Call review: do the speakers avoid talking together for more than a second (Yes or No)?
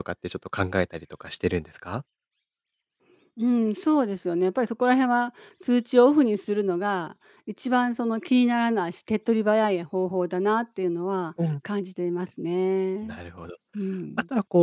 Yes